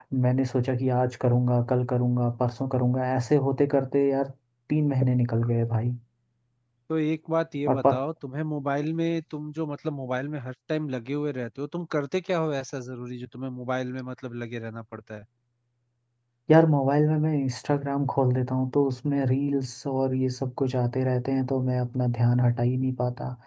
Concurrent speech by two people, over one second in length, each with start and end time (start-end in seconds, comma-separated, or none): none